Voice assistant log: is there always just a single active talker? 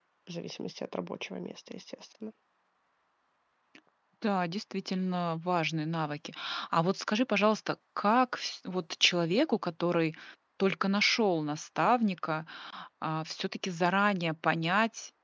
Yes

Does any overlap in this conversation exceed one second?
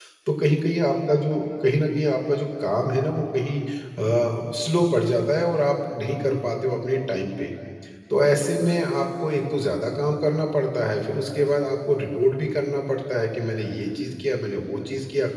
No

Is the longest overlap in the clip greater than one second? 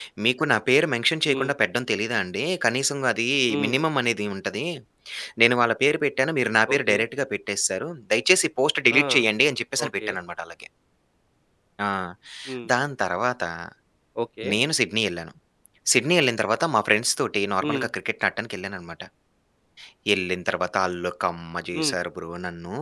No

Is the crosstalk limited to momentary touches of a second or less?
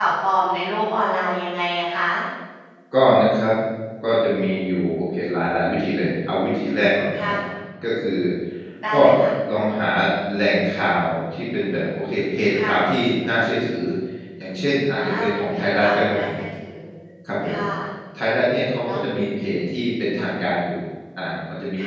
No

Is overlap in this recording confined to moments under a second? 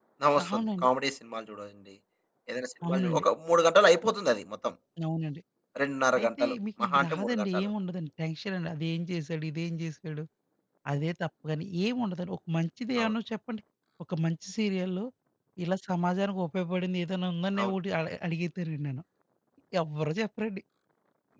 No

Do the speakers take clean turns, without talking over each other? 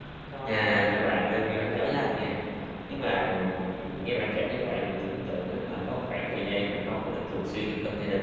No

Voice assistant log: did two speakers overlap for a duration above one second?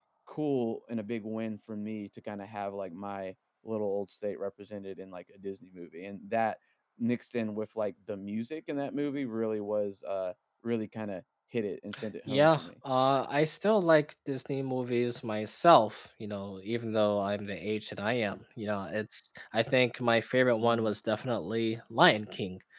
No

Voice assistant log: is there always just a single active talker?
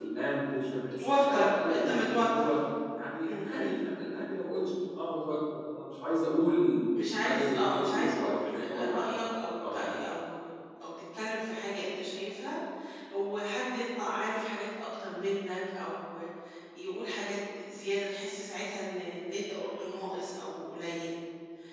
No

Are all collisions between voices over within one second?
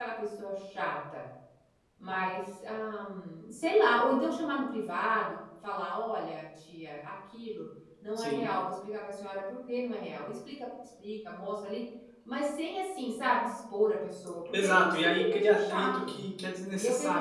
No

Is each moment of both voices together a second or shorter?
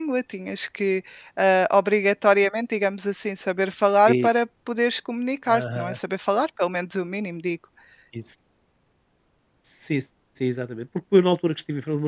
Yes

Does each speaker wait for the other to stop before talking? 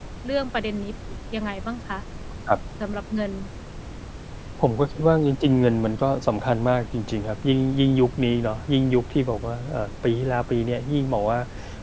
Yes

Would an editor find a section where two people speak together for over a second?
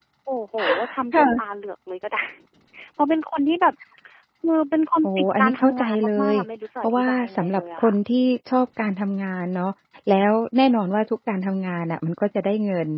Yes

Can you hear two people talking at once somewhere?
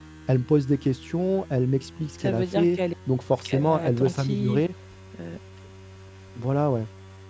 Yes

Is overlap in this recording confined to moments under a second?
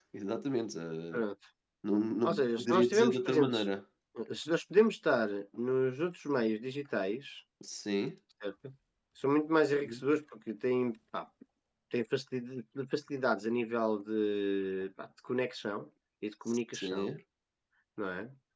No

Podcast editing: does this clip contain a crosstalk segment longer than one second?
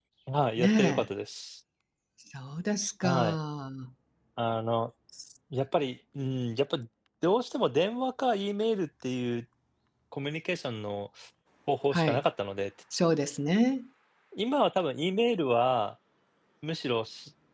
No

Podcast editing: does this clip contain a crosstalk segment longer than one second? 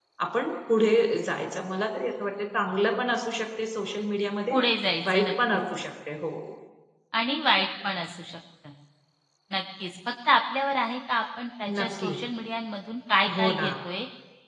No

